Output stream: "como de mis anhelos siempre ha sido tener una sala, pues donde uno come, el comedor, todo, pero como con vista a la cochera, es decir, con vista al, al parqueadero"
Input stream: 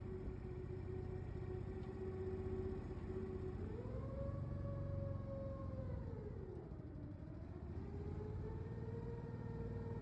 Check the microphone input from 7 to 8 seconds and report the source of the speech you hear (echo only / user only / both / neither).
neither